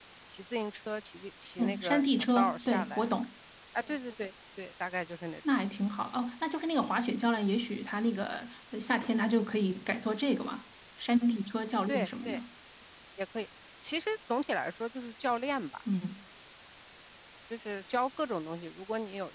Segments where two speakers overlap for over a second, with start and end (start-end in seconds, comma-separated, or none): 1.6-3.0